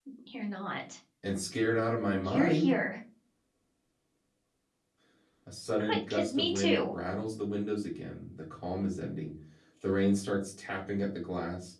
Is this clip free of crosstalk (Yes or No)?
No